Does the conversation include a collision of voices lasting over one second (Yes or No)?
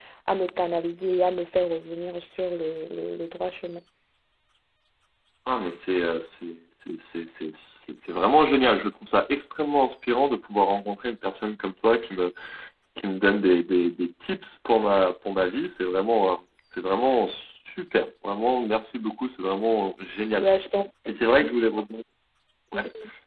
No